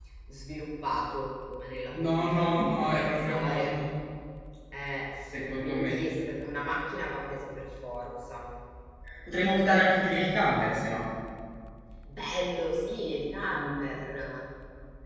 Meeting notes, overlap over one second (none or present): present